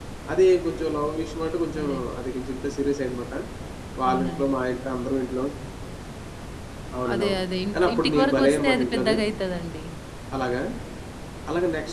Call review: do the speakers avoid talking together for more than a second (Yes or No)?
No